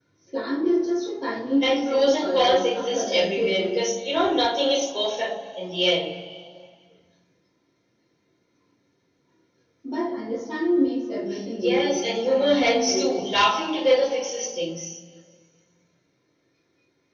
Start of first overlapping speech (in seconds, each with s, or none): 1.6 s